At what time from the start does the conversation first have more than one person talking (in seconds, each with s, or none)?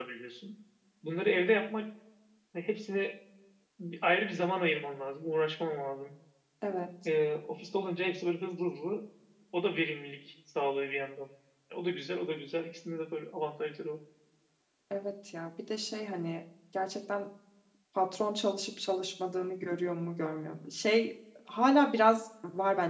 none